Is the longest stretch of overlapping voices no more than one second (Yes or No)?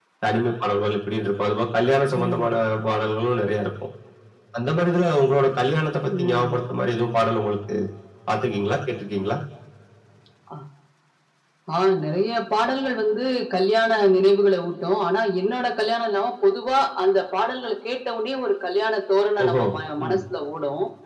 Yes